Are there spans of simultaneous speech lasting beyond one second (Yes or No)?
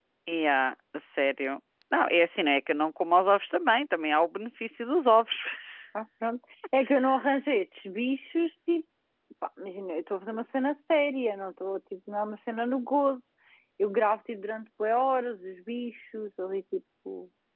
No